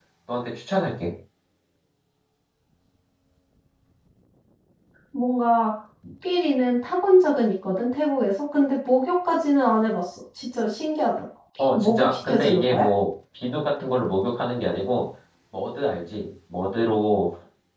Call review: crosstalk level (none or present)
present